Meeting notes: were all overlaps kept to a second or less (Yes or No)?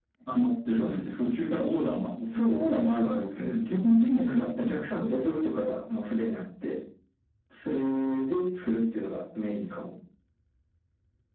No